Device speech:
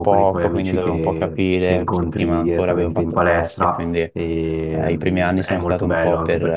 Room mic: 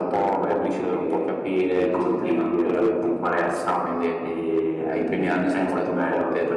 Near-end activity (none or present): none